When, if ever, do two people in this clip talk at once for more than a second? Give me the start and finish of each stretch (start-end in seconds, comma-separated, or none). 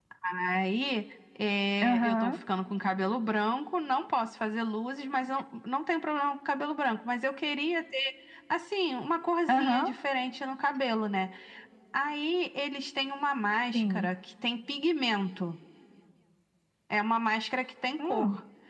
none